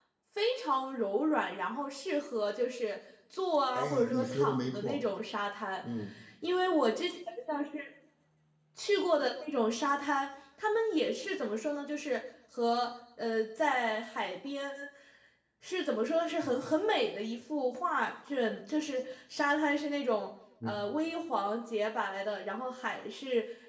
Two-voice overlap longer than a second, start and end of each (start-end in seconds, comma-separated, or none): 3.7-5.0